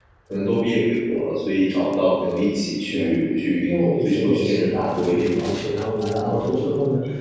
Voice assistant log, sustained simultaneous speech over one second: present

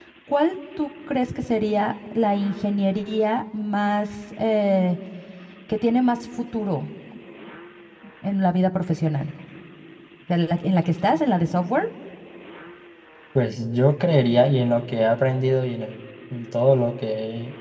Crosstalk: none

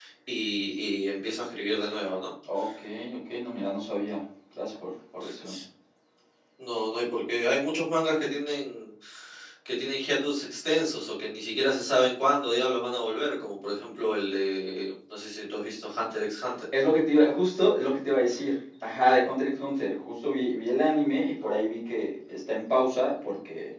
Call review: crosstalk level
none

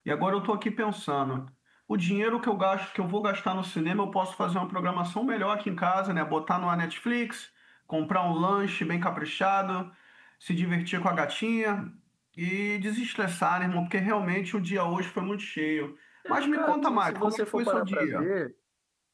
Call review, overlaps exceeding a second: present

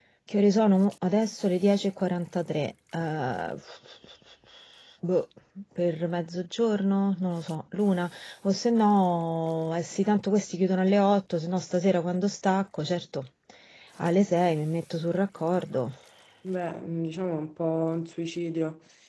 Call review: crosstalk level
none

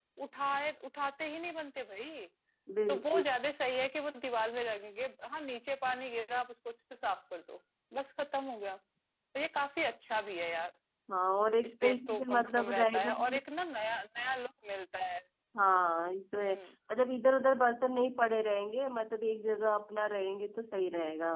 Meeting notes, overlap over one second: present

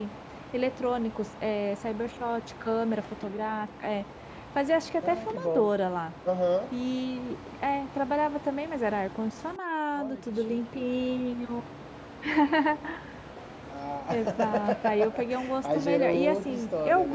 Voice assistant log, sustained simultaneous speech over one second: present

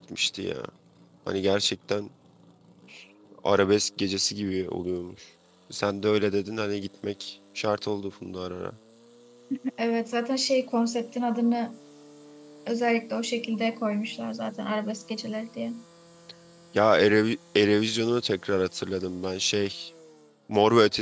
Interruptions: none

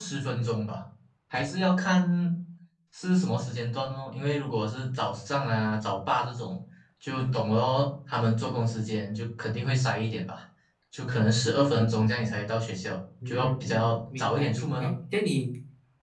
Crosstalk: present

